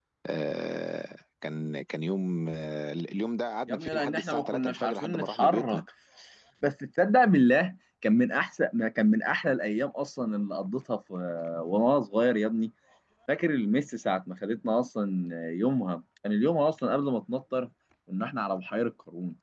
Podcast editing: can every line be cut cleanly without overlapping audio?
No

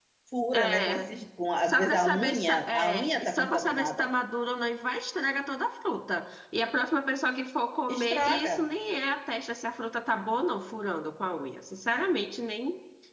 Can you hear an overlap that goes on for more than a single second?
Yes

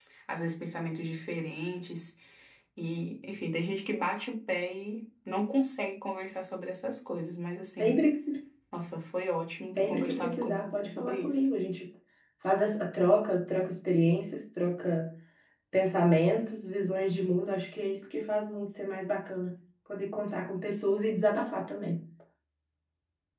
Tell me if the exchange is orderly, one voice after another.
No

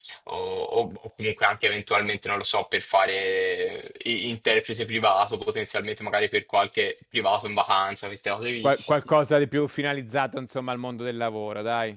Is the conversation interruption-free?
Yes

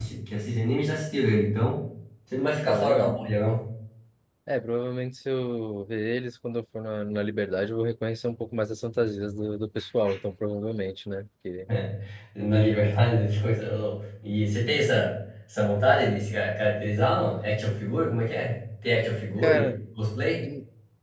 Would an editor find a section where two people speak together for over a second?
No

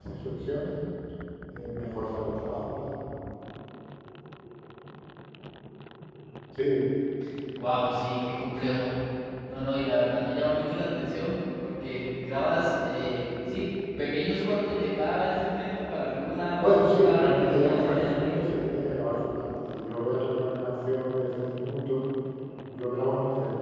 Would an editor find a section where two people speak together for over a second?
Yes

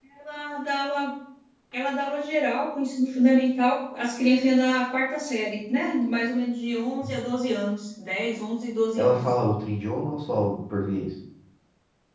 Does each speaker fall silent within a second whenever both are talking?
Yes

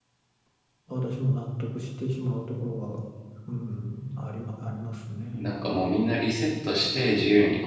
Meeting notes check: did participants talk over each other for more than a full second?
No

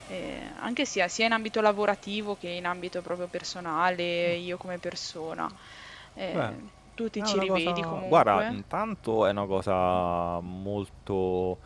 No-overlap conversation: No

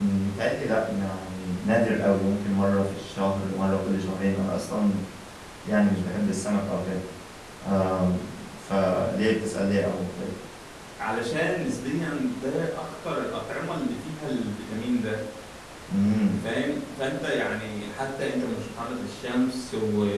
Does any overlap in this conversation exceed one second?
No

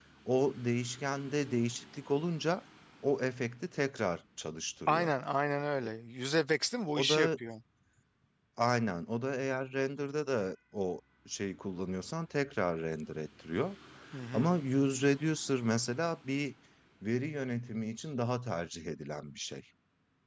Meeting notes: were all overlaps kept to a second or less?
Yes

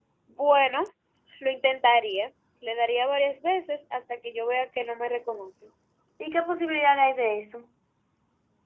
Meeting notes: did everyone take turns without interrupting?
Yes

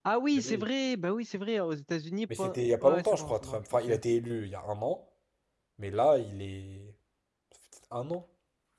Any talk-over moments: Yes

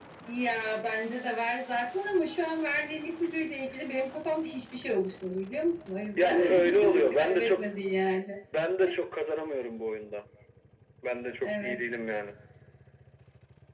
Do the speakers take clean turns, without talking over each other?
No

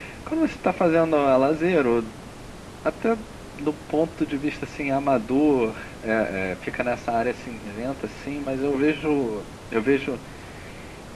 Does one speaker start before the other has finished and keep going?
No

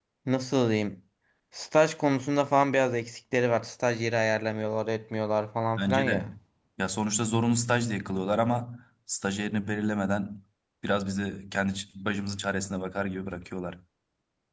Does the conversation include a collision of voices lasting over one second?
No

